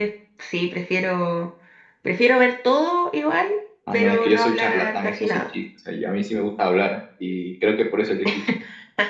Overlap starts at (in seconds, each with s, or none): 3.9 s